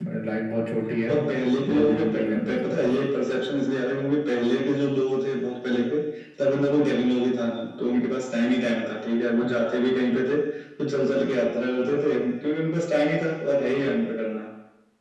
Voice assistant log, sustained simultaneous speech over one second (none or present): present